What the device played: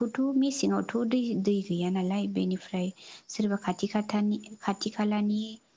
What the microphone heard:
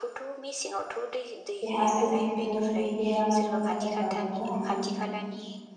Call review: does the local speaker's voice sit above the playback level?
Yes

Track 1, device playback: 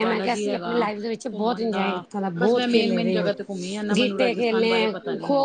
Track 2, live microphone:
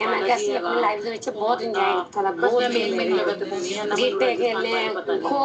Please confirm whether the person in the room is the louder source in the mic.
No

